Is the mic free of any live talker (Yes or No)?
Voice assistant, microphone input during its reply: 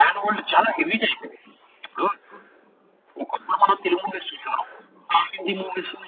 Yes